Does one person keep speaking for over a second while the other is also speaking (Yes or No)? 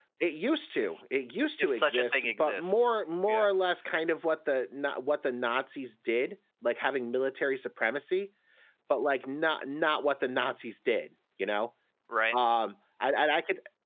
Yes